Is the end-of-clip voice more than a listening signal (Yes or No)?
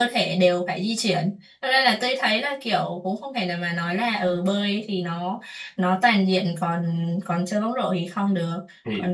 No